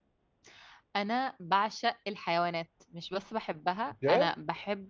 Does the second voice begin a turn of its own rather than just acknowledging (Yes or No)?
No